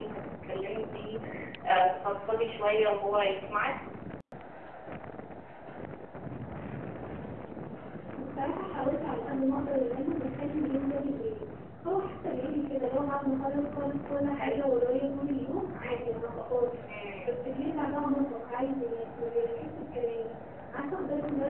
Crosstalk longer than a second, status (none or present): none